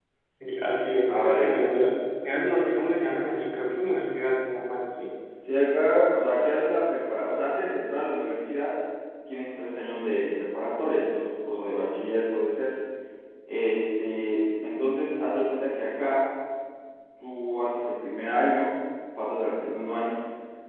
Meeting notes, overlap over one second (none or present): none